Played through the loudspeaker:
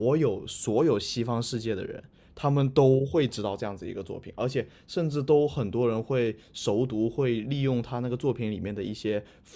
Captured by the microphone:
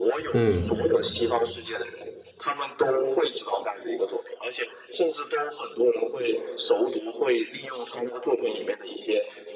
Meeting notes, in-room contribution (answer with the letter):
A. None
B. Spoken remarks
B